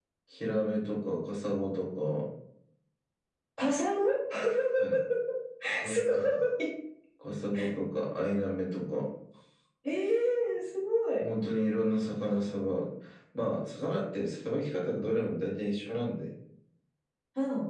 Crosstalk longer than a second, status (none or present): none